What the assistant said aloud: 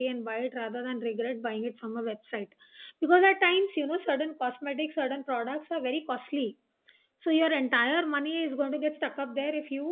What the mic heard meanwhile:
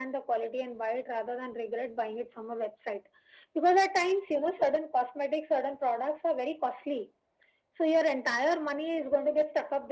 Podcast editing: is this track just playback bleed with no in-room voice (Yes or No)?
Yes